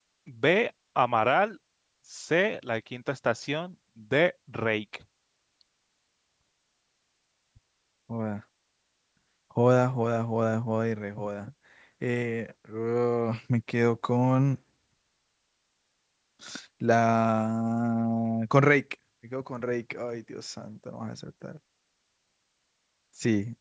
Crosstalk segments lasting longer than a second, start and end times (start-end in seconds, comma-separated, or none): none